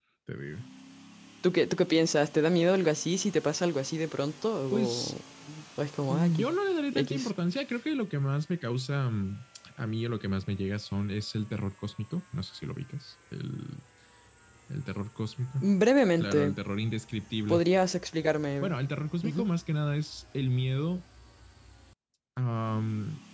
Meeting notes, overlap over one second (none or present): none